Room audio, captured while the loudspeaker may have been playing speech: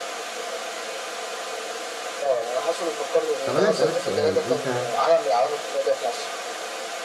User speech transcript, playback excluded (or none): طب انا اسالك سؤال انت